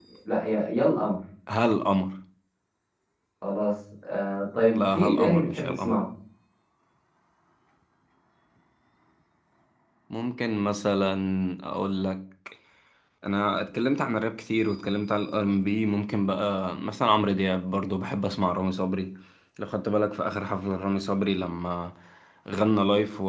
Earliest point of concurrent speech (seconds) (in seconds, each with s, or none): 4.7 s